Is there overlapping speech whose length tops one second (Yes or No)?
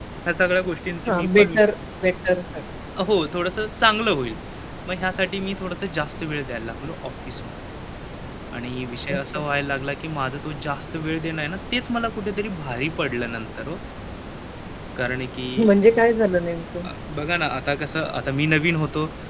No